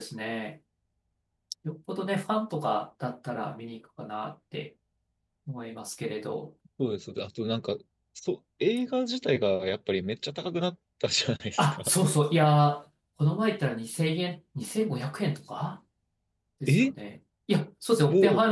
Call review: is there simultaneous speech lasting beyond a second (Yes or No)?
No